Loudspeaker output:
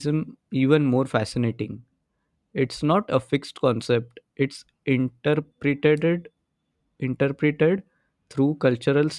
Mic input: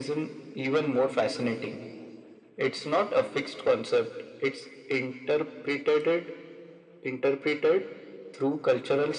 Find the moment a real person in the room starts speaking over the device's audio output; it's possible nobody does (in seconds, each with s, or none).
none